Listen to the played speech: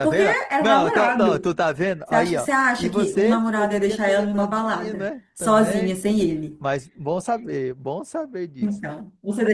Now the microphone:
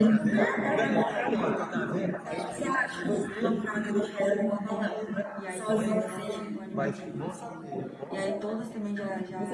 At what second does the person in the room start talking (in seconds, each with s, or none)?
5.3 s